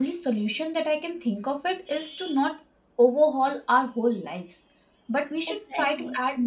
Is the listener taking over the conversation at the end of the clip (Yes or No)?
No